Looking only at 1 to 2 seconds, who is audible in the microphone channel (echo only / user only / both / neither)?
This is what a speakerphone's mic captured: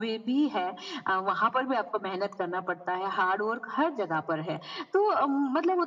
echo only